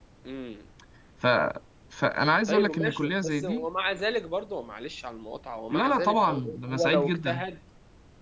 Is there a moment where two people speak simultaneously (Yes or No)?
Yes